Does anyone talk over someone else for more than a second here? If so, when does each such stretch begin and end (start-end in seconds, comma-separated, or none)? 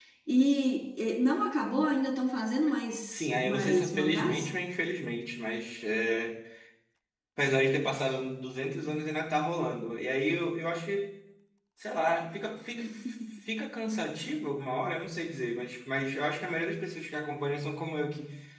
3.1-4.5